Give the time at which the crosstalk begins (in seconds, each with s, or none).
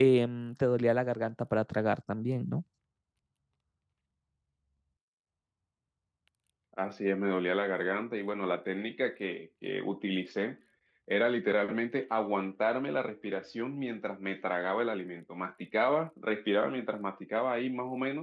none